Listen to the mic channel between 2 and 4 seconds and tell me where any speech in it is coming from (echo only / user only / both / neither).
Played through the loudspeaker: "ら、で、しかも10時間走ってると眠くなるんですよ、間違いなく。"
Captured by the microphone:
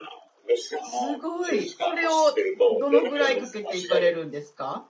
both